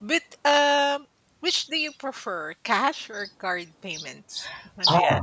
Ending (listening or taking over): taking over